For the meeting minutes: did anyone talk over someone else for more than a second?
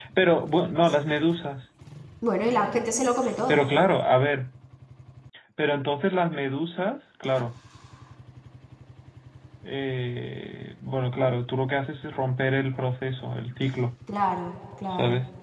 No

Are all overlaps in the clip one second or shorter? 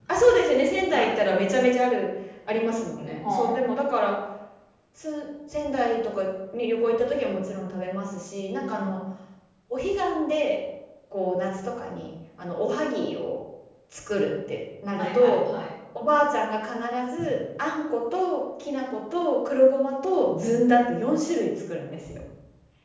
Yes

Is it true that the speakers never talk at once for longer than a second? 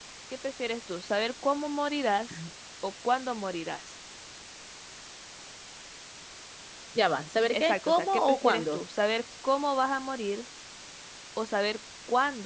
No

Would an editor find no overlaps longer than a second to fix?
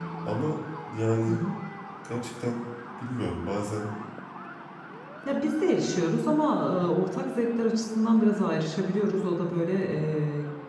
Yes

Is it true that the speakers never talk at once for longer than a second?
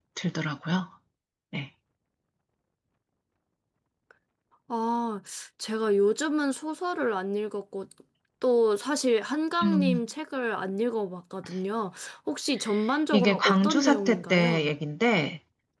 No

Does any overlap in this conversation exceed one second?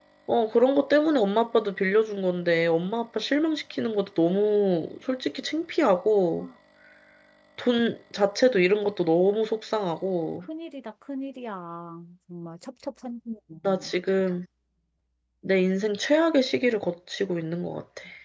No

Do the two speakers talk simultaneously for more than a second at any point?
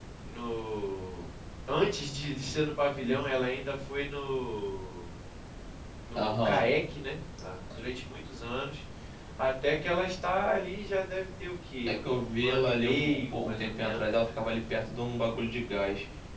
Yes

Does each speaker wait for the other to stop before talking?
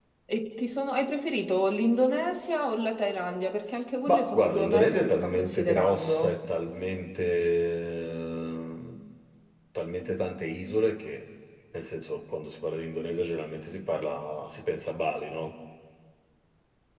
No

